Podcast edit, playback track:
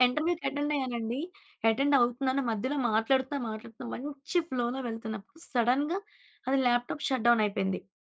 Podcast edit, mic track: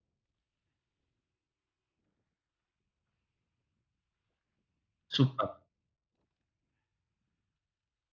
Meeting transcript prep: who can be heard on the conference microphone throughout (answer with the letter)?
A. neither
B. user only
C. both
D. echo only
B